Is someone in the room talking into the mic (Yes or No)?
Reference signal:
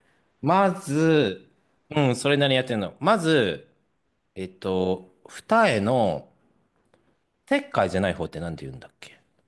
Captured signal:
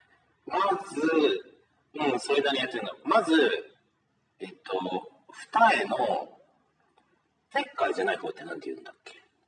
No